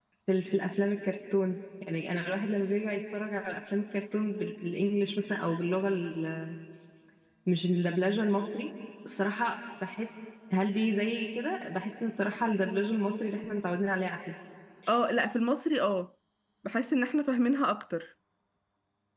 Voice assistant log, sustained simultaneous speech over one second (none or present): none